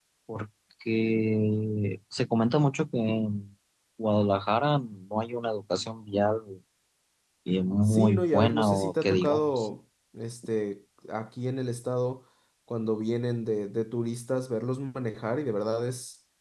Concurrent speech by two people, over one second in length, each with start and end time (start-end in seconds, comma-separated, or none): 7.8-9.7